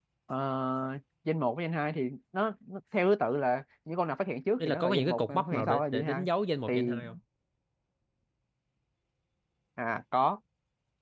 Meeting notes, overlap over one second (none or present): present